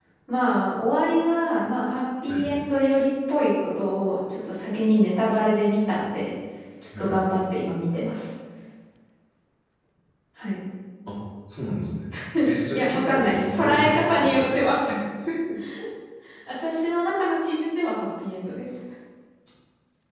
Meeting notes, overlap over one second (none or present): present